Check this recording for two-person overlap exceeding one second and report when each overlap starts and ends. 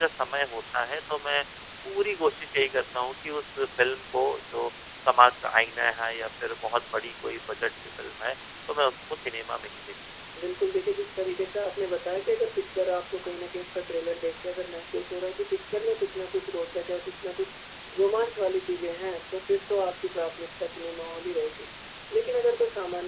none

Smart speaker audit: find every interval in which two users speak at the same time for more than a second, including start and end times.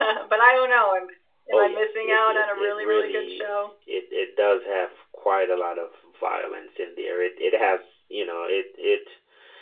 1.5-3.5

